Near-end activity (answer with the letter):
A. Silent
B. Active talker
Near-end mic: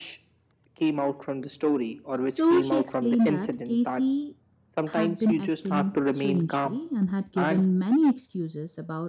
B